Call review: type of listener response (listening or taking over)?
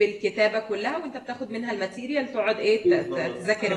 taking over